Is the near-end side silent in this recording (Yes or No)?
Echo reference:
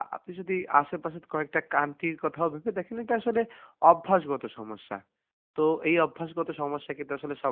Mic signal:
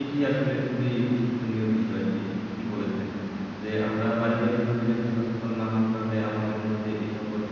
No